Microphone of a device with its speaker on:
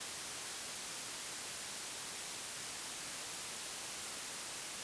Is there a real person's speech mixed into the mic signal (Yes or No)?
No